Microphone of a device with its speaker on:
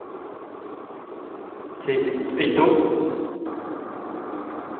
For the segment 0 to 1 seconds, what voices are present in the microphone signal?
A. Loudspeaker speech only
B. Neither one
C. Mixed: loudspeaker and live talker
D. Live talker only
B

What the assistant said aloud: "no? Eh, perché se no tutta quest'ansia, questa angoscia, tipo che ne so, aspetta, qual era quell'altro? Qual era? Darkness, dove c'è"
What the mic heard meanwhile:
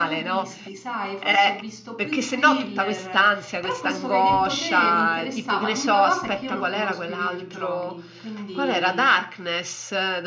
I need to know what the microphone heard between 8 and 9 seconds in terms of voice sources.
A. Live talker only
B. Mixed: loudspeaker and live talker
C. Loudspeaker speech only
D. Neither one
B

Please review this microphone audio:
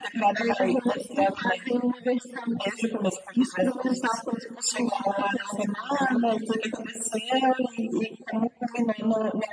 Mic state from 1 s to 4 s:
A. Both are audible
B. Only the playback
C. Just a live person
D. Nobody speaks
B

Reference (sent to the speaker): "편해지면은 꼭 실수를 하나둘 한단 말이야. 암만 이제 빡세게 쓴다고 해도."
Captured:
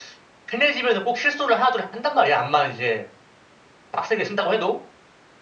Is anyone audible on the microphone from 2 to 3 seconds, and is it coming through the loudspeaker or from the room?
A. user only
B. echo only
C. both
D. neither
B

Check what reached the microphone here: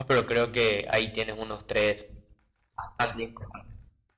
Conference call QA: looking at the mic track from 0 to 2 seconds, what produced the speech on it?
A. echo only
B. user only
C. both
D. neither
B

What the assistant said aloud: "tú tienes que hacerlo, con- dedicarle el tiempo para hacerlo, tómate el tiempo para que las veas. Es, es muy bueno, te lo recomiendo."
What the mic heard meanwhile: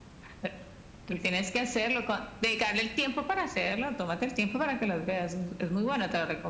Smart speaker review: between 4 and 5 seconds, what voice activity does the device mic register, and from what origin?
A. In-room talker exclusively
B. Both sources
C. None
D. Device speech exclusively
D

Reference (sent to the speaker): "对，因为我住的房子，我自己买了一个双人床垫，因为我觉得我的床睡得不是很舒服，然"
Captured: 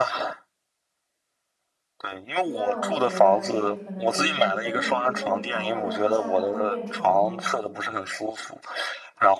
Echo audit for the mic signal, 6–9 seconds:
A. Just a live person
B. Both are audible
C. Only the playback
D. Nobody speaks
B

